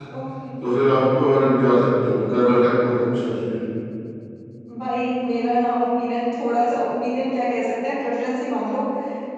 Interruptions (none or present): none